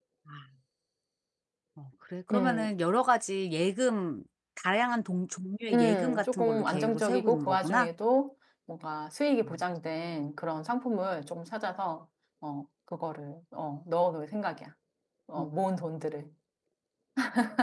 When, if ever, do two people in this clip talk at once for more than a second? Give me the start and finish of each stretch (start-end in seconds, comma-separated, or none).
5.7-7.9